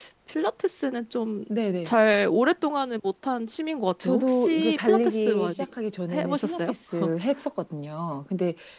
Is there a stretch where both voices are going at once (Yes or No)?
Yes